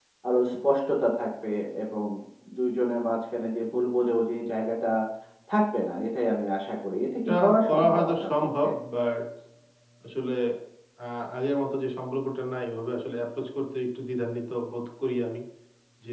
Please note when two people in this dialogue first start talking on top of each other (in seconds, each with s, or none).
7.3 s